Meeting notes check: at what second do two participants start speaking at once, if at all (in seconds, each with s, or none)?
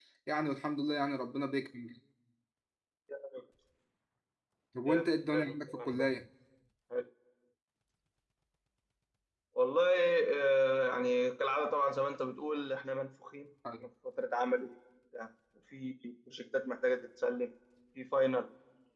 4.9 s